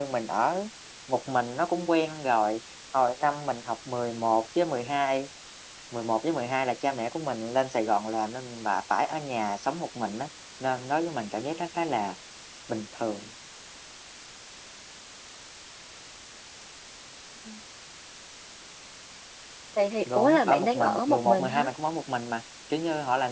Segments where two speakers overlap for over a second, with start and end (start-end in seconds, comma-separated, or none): 20.1-21.6